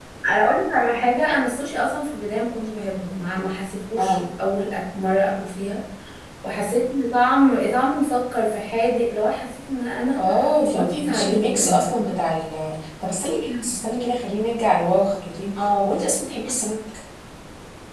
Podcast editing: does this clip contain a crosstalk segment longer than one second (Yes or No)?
Yes